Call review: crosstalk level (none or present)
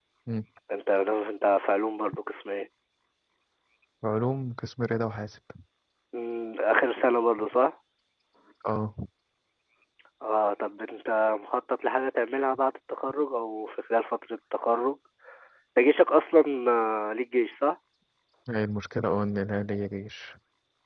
none